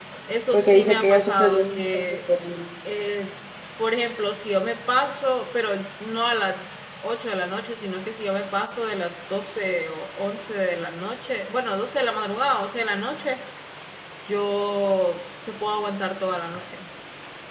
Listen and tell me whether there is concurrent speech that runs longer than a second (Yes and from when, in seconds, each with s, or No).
Yes, from 0.5 s